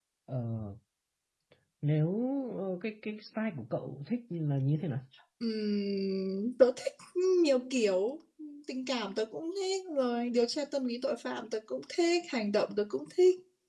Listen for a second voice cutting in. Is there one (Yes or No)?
No